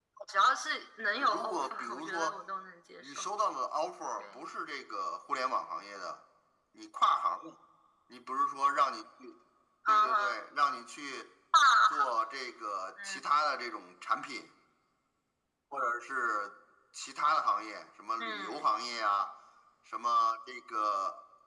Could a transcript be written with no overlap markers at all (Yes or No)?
No